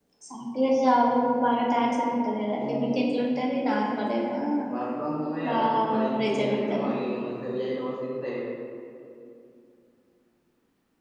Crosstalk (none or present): present